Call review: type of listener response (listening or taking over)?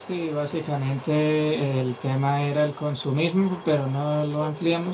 listening